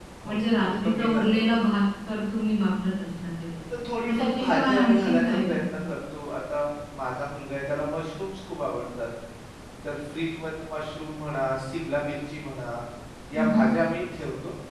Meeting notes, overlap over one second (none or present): present